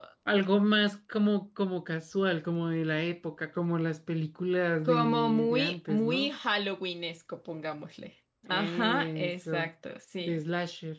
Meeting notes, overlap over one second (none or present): present